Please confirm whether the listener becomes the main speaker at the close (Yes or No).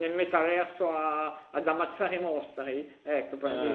No